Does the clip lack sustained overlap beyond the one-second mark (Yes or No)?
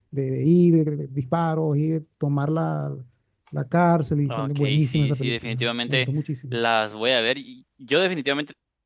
No